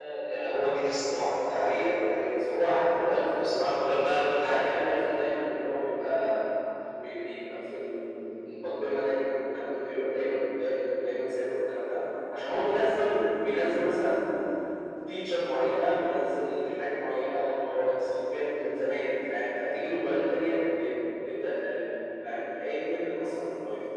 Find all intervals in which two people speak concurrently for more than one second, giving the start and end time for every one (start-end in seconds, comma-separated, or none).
none